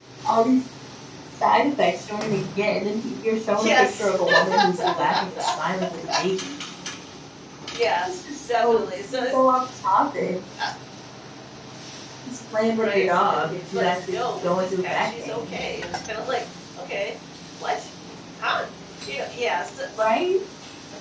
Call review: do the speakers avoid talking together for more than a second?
No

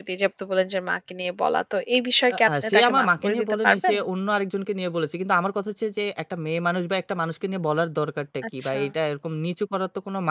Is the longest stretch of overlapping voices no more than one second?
No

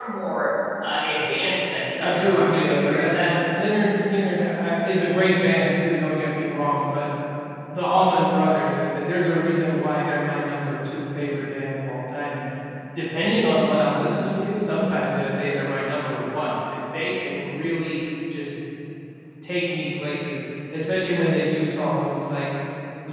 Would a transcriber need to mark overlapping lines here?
Yes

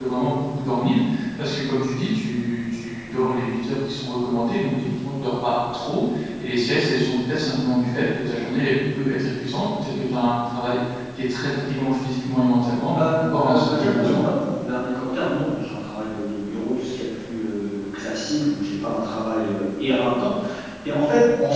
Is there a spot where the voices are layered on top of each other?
Yes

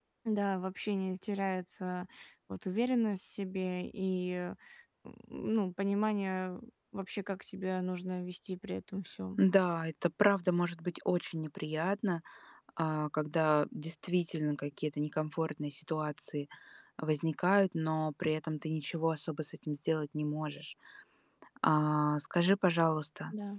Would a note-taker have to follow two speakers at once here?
No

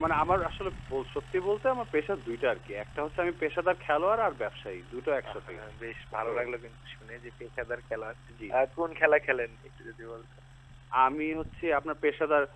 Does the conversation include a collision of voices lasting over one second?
No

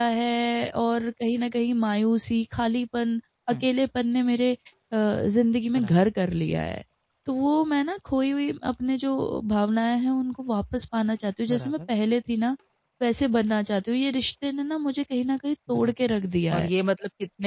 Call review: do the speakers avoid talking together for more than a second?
Yes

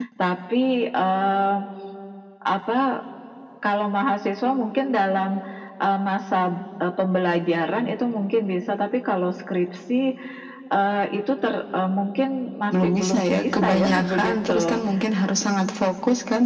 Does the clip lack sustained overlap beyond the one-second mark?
No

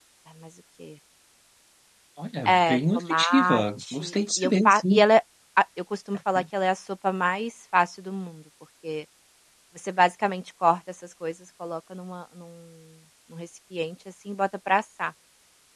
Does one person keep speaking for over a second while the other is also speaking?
Yes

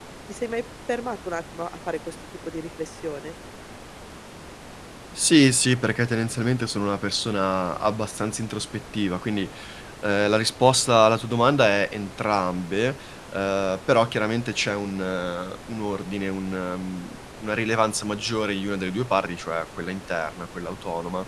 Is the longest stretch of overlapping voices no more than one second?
Yes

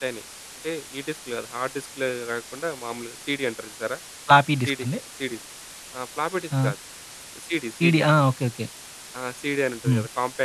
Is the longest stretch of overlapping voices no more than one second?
Yes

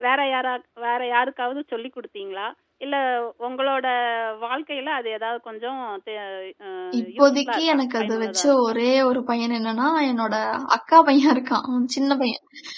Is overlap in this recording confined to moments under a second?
No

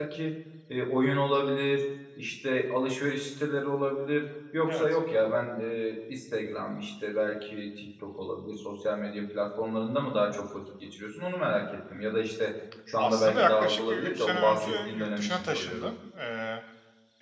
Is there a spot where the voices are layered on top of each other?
Yes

